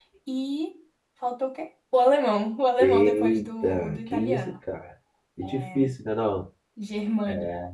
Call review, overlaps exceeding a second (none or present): present